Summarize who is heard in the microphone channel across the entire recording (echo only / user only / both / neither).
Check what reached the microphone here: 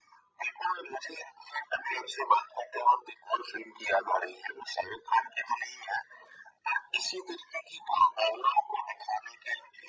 echo only